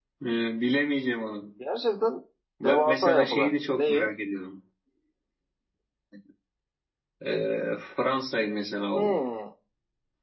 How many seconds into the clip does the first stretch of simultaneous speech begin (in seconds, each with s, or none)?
2.6 s